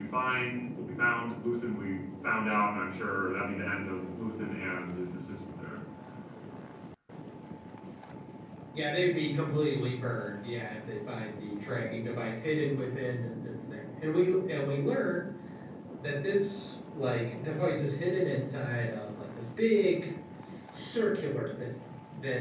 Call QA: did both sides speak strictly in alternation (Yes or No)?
Yes